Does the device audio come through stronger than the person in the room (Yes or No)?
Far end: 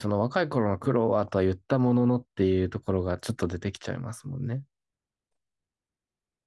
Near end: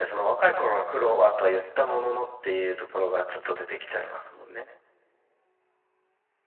Yes